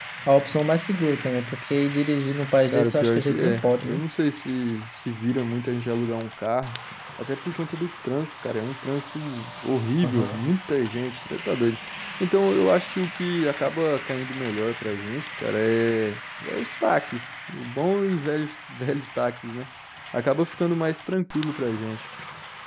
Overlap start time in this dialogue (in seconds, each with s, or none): 2.7 s